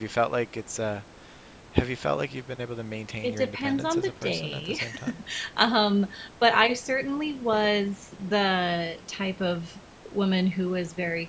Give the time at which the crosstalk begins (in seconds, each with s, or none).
3.2 s